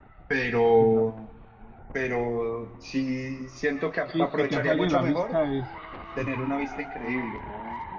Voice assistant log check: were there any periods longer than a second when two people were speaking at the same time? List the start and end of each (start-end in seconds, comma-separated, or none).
4.1-5.4